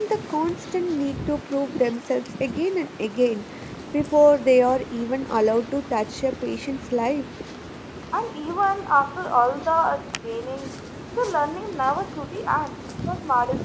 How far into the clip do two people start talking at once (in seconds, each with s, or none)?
none